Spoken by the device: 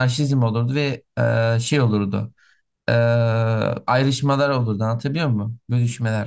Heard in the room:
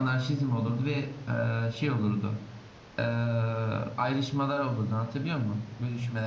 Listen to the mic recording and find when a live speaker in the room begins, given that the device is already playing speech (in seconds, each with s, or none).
none